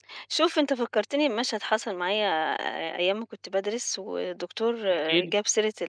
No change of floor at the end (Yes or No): Yes